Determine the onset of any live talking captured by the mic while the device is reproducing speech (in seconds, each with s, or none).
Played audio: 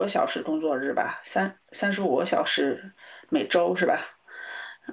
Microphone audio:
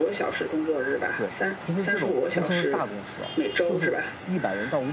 1.1 s